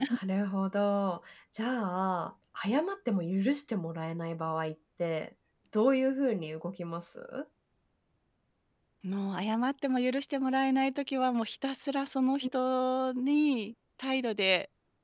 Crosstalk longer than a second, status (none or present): none